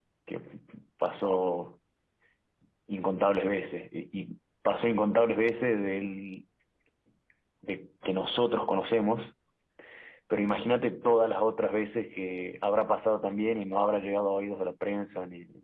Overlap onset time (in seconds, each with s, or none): none